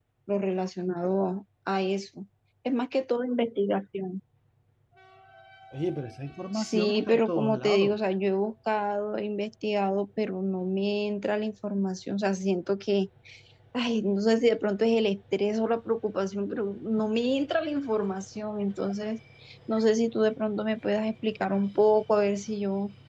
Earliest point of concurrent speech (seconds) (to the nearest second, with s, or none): 7 s